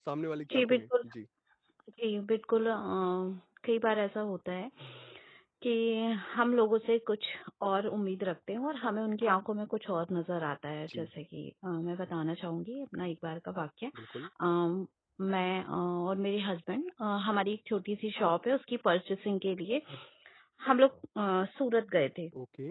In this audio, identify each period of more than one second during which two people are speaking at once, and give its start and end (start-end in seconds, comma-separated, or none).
none